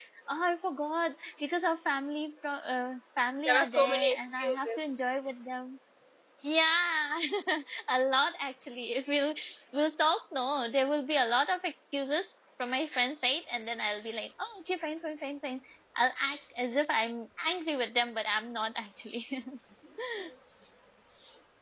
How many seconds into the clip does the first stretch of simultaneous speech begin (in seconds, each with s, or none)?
3.4 s